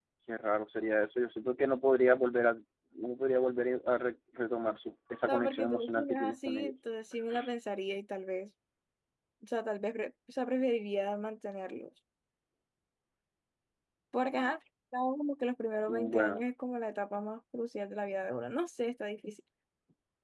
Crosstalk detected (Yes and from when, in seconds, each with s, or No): Yes, from 5.3 s